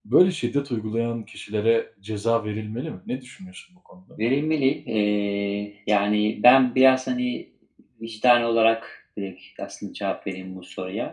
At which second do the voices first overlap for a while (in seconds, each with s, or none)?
none